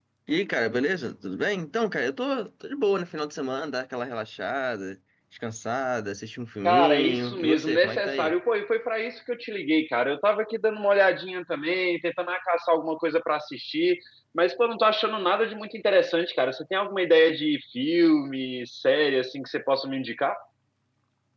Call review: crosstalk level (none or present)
present